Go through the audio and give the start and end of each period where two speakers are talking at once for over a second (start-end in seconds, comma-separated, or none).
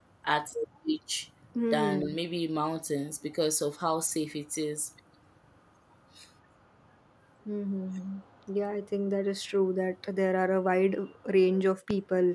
none